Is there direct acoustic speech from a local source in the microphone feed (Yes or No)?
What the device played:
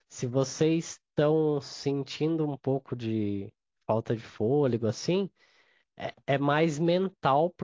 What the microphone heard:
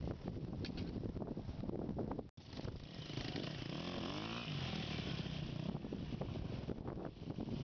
No